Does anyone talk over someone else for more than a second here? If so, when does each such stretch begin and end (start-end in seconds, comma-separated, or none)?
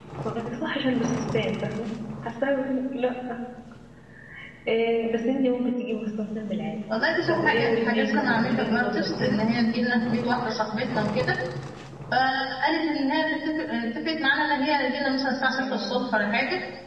7.3-9.4